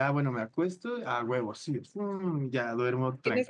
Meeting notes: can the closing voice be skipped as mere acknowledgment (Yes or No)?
No